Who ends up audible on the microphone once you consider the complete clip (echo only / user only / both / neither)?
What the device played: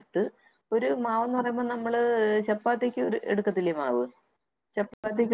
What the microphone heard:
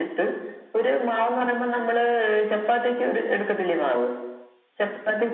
echo only